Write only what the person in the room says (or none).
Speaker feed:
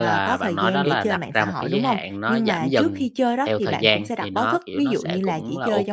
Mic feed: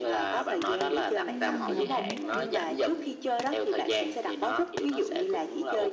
Ừm, đồng ý nè.